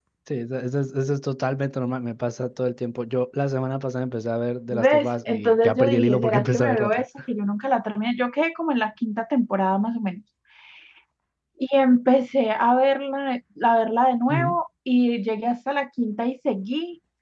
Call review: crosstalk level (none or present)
present